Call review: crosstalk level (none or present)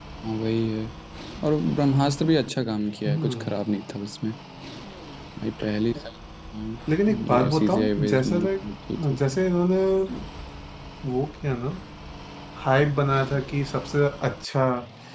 present